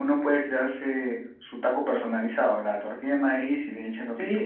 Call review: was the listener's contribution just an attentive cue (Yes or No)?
No